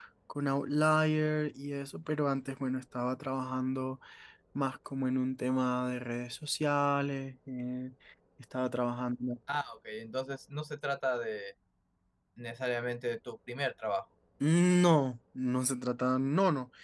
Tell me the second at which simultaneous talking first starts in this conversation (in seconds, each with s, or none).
none